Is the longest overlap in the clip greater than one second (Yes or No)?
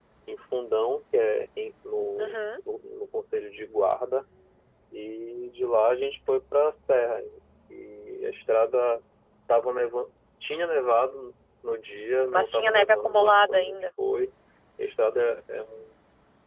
Yes